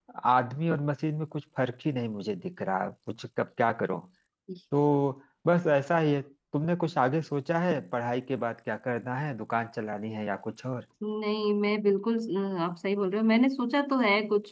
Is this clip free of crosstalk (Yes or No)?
Yes